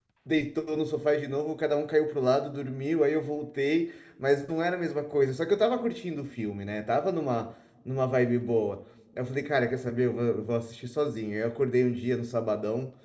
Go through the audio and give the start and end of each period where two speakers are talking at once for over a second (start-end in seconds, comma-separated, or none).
none